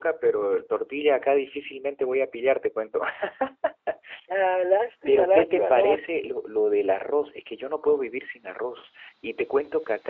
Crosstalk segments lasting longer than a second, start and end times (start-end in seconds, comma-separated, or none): 5.1-6.3